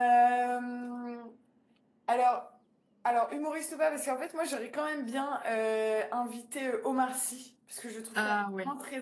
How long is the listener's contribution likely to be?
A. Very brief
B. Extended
A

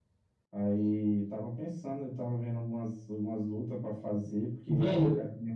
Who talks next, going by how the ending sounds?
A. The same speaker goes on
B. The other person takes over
B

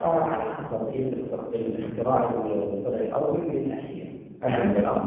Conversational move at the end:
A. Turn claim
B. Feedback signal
B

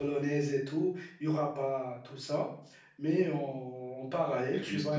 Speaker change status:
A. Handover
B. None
B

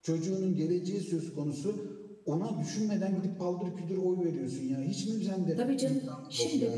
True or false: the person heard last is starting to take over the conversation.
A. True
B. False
A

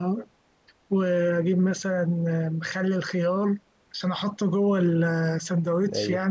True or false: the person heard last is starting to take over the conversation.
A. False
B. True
B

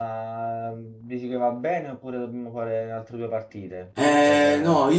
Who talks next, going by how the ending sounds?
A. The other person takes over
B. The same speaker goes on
A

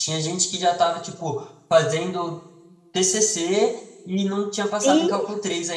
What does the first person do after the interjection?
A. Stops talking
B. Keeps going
B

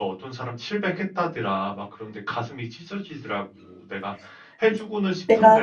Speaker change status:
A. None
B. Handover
A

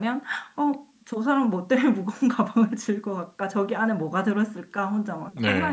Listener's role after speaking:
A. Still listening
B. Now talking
B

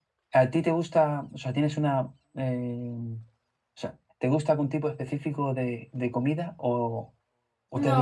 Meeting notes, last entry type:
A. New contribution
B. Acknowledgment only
A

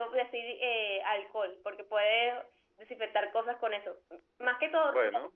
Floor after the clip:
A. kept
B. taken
A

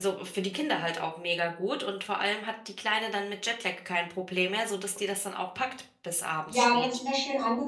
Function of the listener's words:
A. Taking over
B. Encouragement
A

